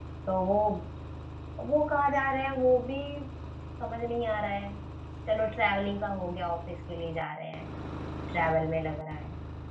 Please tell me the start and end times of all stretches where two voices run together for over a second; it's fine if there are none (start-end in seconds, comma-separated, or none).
none